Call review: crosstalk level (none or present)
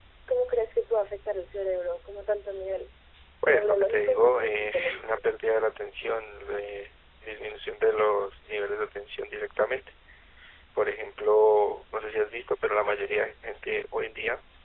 present